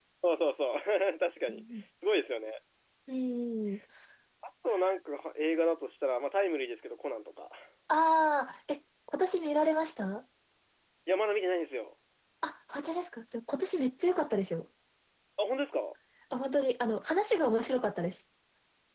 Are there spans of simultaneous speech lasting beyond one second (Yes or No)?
No